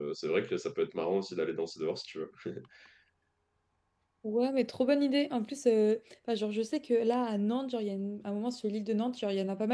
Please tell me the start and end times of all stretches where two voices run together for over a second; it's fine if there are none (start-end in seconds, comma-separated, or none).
none